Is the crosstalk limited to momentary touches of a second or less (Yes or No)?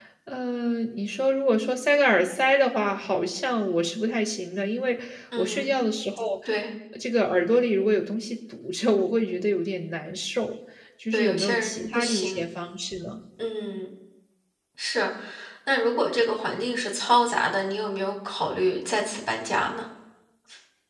No